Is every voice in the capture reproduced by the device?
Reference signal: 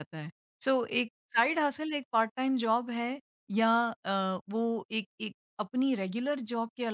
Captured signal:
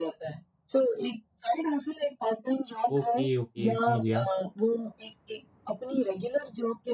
No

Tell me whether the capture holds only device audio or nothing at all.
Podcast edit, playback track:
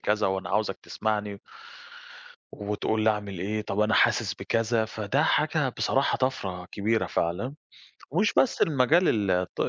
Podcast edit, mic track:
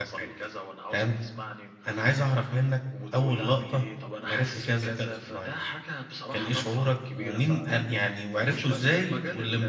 No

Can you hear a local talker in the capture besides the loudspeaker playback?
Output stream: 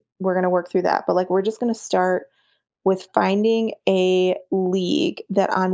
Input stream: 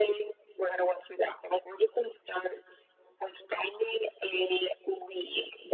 No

